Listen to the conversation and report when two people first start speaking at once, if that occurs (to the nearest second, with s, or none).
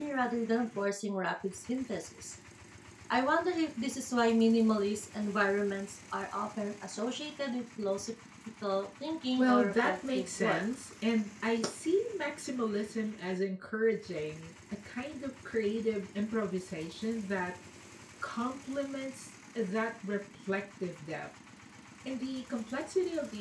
9 s